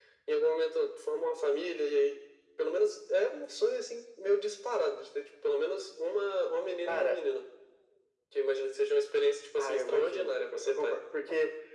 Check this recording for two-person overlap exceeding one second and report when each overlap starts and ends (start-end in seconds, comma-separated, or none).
9.6-11.0